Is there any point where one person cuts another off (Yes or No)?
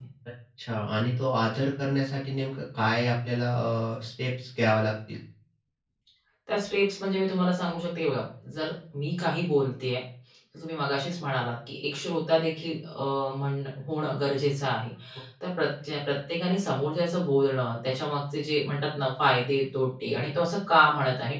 No